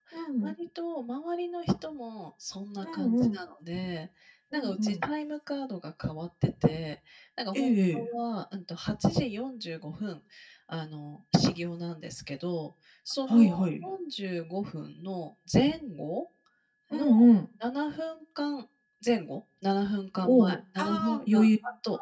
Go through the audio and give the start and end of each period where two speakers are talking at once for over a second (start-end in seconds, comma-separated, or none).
20.2-21.4